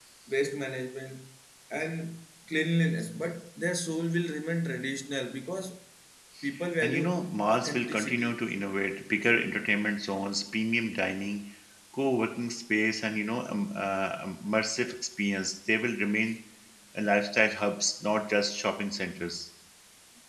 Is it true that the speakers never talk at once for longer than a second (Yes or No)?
No